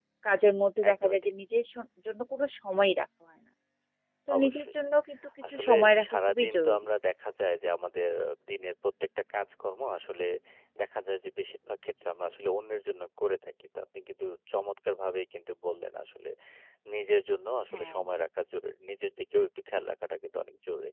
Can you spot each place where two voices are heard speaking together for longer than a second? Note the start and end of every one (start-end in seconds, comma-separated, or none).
5.5-6.8